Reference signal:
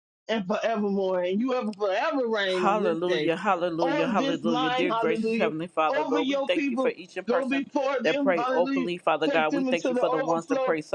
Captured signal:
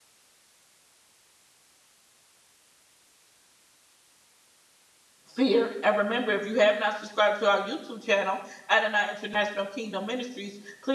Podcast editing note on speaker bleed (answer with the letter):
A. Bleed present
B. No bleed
B